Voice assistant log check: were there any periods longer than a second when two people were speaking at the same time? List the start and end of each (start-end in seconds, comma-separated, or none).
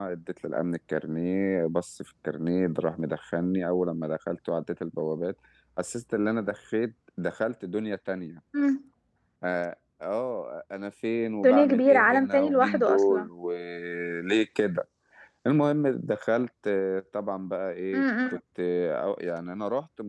11.4-13.3